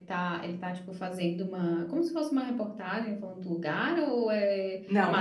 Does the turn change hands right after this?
Yes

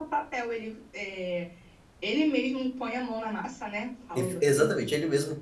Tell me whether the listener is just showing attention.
No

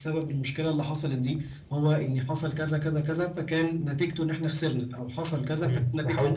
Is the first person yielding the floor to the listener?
Yes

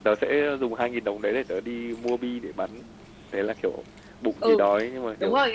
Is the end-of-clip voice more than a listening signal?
Yes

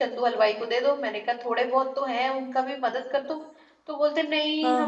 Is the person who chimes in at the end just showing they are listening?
Yes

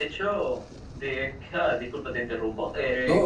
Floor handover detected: No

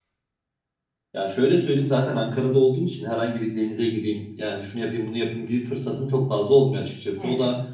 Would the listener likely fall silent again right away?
Yes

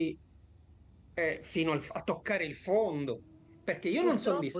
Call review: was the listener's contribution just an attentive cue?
Yes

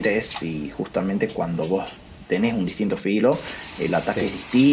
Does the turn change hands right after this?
No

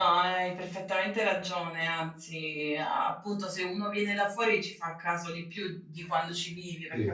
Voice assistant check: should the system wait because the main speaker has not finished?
Yes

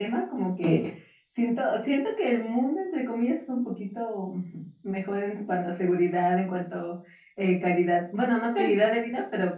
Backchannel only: Yes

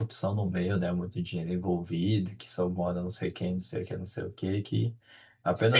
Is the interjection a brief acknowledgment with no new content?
No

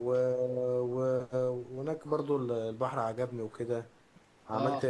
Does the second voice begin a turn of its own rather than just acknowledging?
No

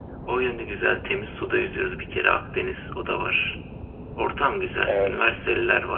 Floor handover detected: No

